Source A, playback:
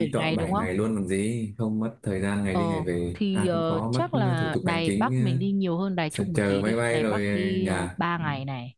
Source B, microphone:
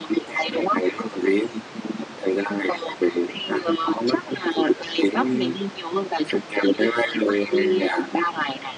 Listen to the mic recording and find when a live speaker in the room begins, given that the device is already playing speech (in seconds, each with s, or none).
none